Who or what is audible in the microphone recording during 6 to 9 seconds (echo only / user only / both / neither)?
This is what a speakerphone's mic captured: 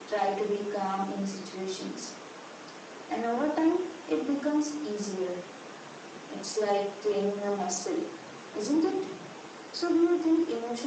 echo only